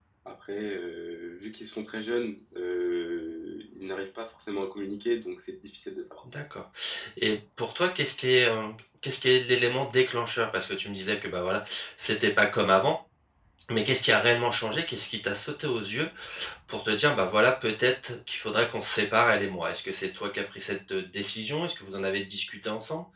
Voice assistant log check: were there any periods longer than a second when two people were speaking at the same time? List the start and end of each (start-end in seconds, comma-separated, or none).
none